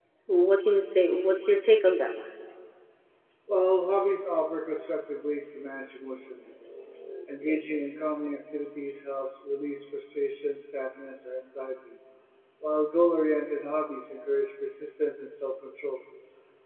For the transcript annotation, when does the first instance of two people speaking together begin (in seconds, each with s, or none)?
none